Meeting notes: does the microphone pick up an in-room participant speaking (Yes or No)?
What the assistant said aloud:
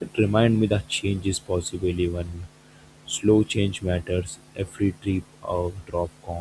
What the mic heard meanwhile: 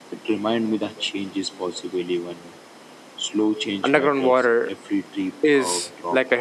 Yes